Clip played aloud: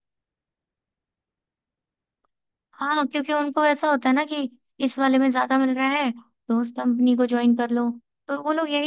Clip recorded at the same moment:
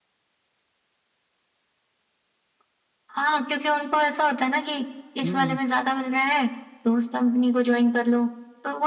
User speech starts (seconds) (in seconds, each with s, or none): 5.2 s